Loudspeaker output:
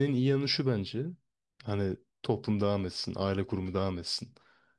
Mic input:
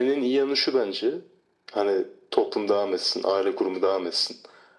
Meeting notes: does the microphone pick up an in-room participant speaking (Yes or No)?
No